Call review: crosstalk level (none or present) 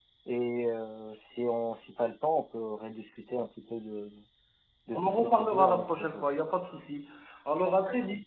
present